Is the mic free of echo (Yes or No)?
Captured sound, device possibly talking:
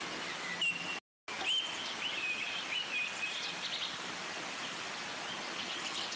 Yes